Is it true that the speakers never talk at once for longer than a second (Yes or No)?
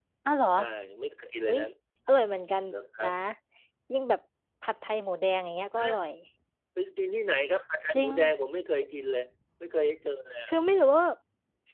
Yes